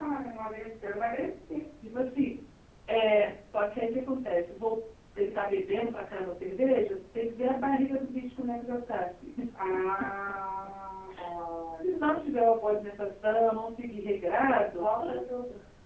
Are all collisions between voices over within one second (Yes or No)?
Yes